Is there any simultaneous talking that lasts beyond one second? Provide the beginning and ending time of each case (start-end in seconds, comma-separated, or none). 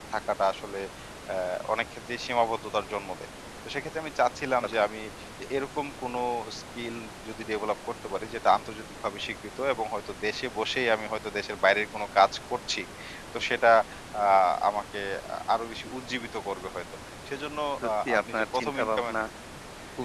17.8-19.1